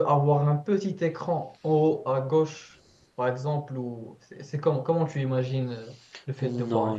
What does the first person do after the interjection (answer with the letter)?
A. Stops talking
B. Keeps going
A